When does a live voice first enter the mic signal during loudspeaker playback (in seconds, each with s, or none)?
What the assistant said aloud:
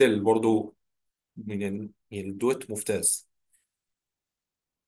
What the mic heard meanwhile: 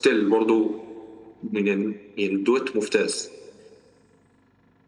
none